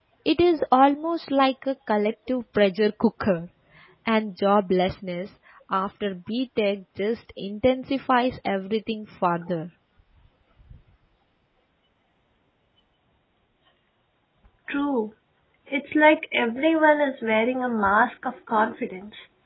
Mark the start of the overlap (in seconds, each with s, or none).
none